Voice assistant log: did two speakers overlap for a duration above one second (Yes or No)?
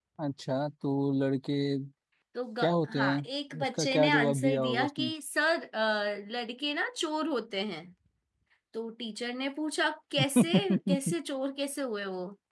Yes